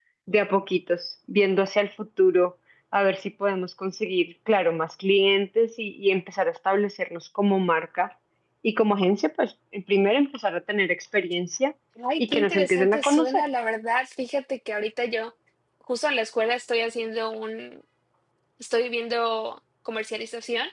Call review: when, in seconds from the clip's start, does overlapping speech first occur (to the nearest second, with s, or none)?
12 s